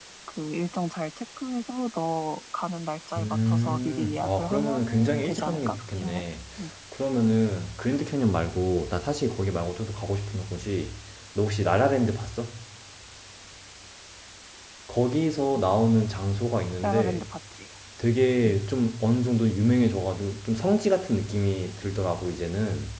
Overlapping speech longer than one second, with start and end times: 3.2-6.2

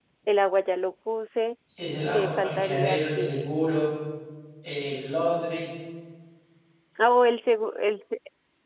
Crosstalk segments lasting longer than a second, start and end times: 2.1-3.5

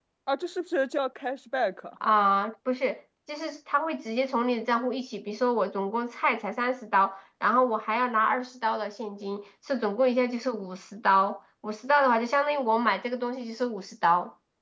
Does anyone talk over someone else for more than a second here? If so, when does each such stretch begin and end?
none

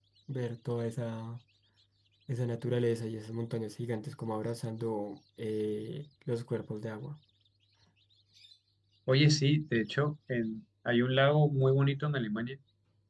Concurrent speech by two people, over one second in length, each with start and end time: none

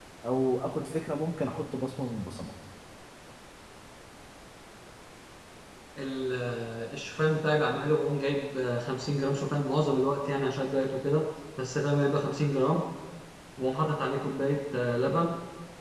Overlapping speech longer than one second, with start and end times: none

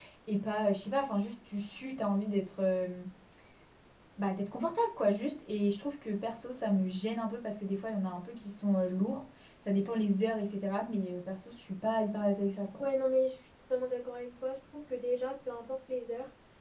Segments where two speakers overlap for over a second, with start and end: none

